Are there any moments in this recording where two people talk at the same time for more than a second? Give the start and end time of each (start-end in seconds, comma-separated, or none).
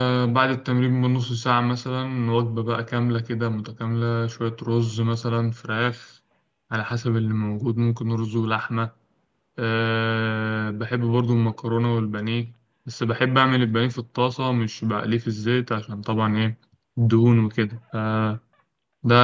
none